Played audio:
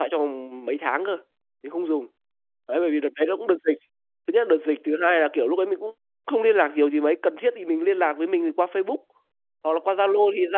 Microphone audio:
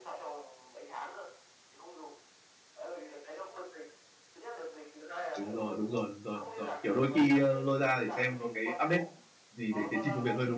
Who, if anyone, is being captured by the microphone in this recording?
both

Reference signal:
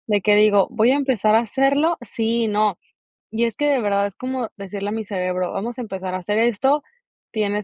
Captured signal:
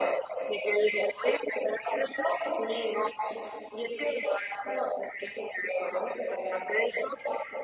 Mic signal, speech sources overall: echo only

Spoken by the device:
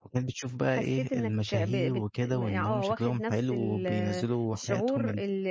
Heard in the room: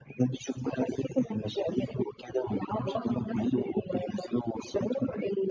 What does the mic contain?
both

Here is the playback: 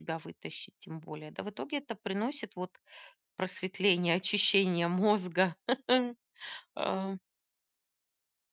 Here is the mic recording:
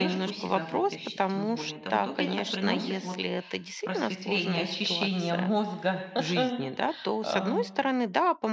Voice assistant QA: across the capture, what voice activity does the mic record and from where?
both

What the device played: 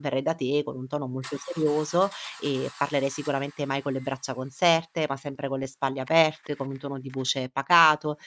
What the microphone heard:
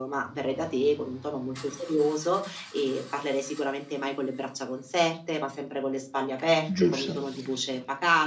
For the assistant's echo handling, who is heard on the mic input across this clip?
both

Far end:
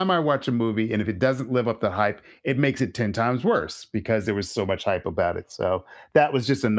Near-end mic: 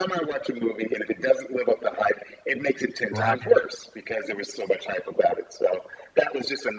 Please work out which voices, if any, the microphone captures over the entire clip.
both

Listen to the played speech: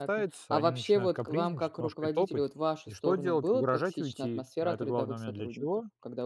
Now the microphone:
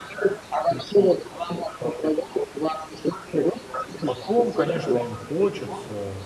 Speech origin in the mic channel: both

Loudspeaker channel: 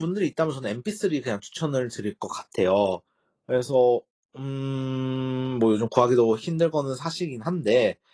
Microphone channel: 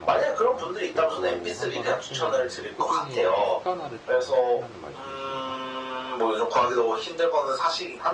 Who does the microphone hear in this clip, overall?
both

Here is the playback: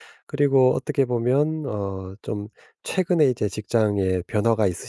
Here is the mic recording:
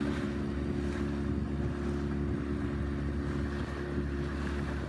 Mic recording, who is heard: neither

